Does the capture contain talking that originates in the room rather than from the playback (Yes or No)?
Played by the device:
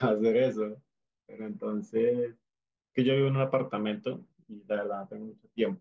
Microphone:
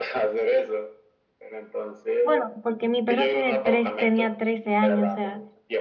Yes